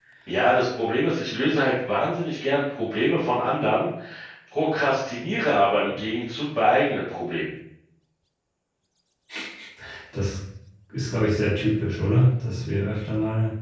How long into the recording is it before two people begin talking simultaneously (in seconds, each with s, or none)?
none